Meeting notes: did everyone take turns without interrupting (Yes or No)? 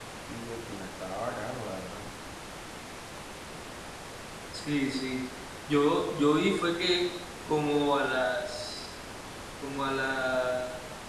Yes